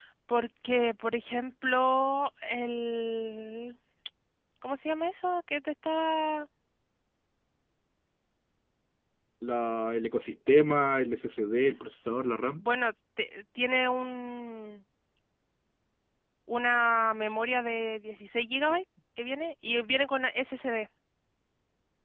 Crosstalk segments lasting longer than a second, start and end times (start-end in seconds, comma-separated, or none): none